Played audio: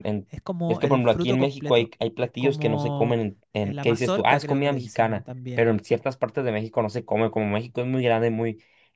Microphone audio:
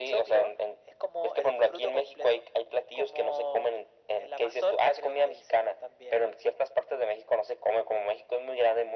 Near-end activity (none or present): none